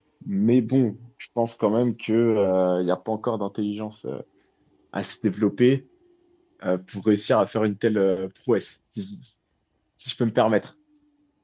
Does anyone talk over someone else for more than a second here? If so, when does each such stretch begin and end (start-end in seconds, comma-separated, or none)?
none